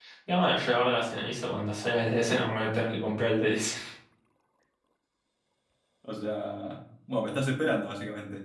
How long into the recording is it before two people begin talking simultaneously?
none

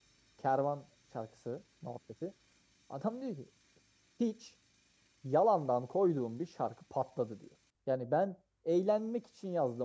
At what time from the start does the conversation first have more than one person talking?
none

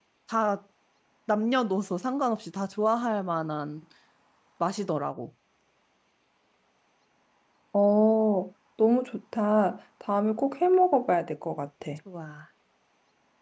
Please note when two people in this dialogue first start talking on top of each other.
none

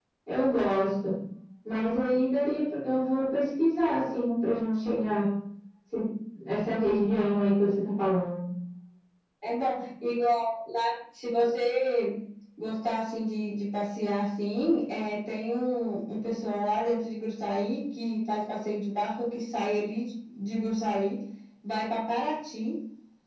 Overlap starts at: none

